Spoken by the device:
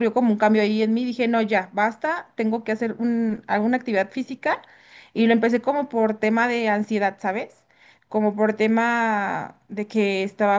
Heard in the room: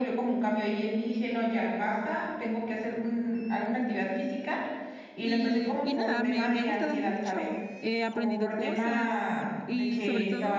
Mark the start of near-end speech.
5.2 s

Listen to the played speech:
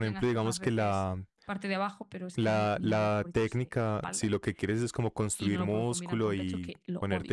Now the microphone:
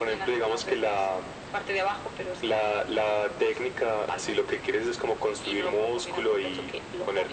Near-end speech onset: none

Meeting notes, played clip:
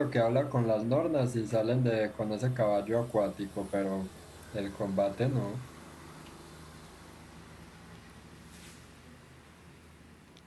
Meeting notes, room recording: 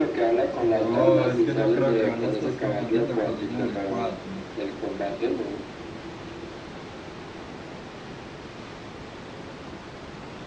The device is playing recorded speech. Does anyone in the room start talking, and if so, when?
0.6 s

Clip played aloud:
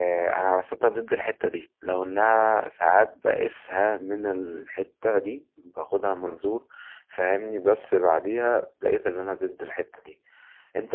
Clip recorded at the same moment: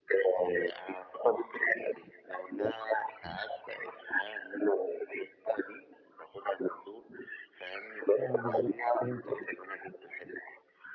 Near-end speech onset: 8.2 s

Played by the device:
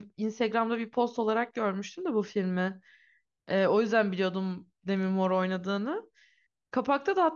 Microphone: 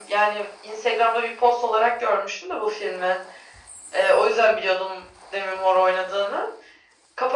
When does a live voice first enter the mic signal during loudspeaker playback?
none

